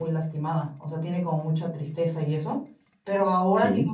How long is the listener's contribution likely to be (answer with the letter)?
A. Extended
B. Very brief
B